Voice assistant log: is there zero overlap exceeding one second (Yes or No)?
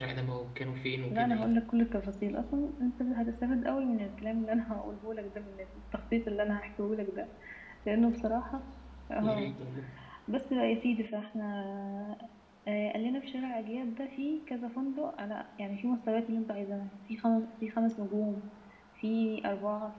Yes